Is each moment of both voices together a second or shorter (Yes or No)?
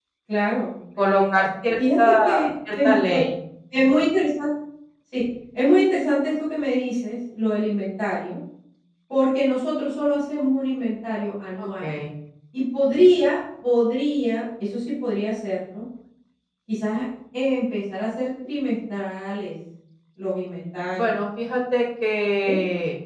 No